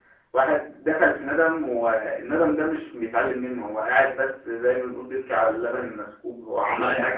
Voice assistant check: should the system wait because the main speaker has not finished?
Yes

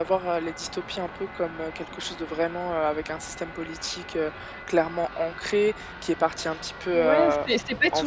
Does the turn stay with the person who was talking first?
No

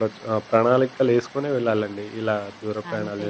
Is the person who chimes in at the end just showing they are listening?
No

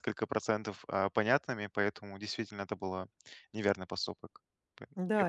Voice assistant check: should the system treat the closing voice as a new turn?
Yes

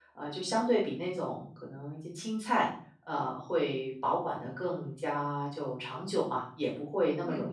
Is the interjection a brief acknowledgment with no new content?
Yes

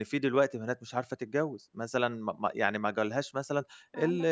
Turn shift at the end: No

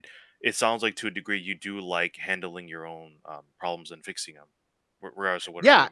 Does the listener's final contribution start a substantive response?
Yes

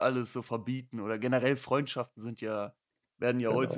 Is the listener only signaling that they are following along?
Yes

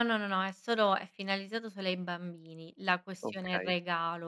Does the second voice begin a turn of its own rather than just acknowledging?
No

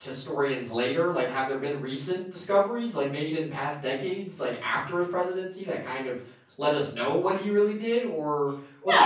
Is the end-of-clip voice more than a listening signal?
Yes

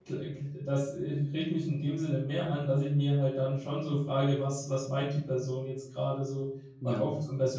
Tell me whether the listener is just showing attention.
Yes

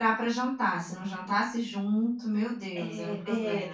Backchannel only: No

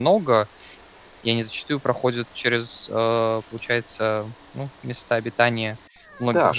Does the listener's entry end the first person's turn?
Yes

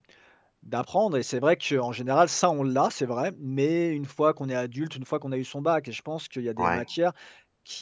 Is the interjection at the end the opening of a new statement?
No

